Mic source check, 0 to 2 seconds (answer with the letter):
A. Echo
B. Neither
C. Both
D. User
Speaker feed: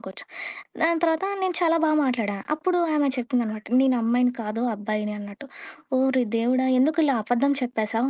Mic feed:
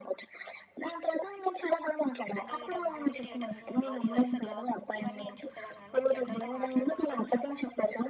A